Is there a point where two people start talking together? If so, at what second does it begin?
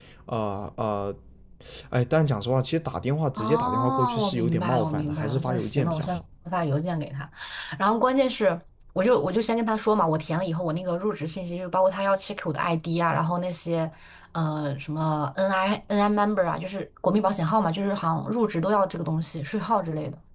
3 s

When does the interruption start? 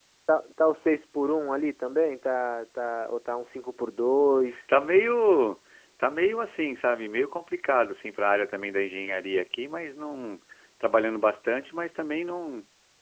none

